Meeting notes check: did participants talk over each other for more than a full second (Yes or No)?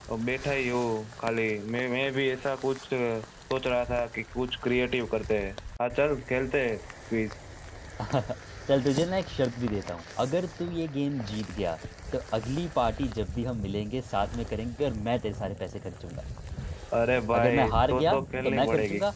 Yes